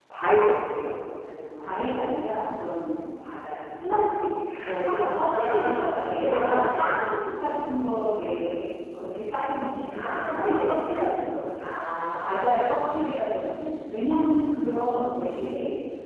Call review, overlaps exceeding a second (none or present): present